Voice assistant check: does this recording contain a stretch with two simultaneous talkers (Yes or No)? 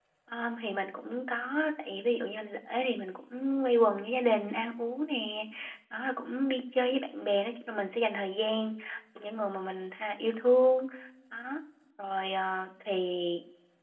No